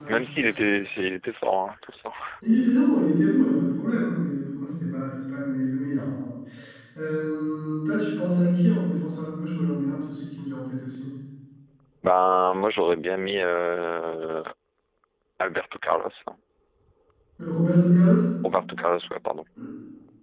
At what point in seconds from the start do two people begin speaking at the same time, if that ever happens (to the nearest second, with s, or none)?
none